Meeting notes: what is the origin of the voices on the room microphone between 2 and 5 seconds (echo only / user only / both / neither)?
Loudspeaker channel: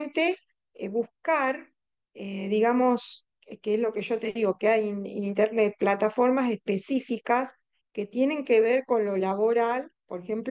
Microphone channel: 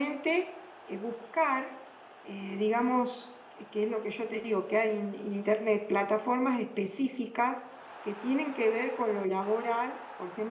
echo only